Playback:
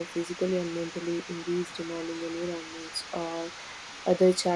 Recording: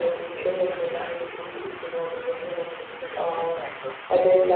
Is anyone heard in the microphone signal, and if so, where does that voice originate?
both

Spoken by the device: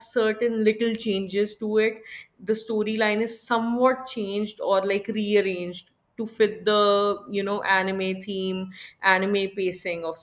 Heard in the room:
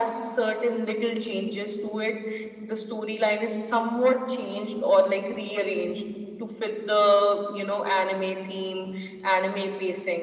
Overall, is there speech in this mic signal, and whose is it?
echo only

